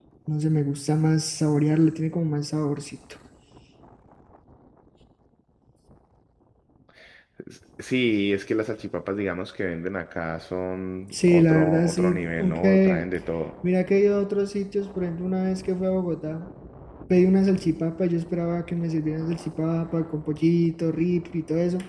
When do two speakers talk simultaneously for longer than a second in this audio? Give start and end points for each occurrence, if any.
11.1-13.1

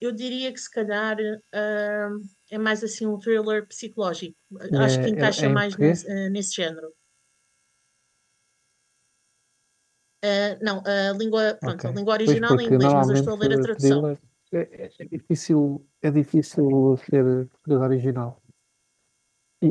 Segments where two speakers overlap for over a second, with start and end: 4.7-6.0, 12.3-14.1

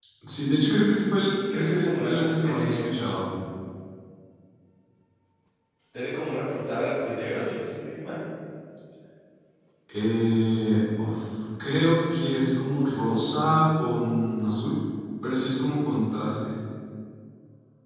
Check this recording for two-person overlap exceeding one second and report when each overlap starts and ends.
1.5-3.0

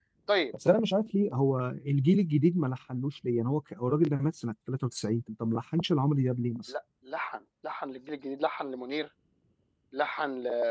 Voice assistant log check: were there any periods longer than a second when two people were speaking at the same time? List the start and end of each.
none

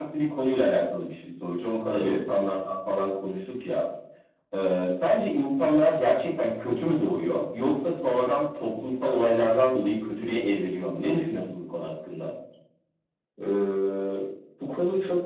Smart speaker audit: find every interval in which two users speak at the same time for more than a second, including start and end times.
none

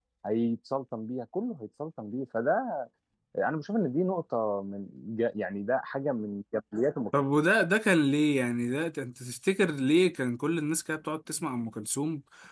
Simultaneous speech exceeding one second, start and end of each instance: none

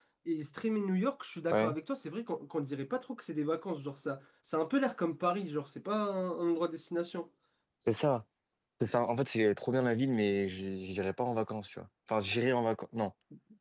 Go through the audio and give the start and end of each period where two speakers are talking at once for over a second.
none

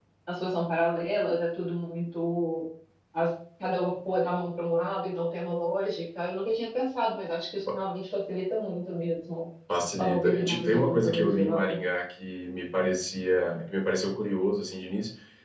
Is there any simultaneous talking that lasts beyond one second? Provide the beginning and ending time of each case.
10.0-11.8

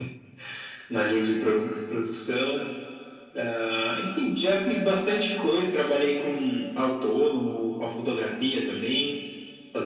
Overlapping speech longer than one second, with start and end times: none

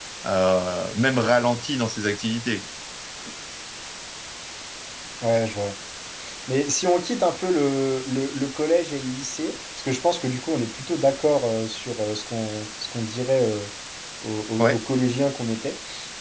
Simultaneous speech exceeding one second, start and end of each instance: none

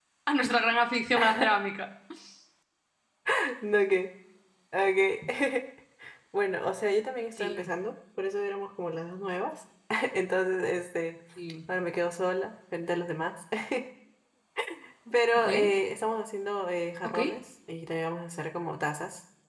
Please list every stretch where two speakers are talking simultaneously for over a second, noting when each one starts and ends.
none

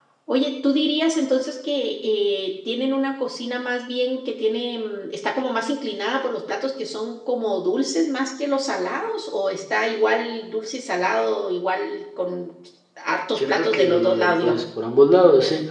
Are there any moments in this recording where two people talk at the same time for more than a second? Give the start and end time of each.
13.3-14.6

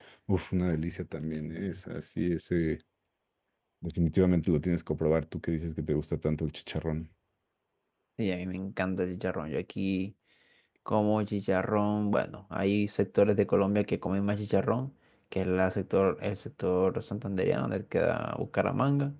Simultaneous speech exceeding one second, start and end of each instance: none

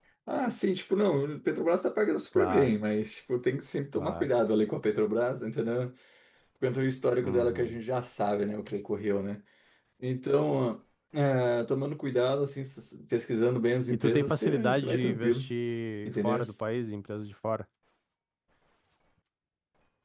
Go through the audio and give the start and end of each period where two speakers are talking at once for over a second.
13.9-15.5

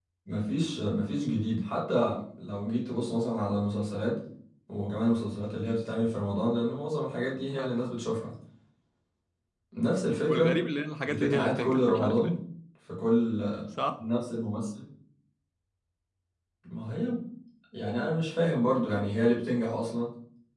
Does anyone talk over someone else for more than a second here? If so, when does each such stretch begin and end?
11.0-12.4

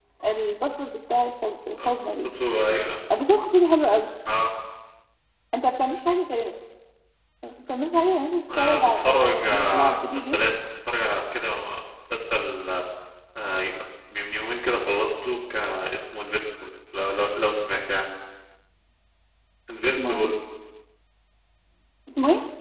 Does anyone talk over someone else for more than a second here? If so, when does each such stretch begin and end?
8.6-10.4

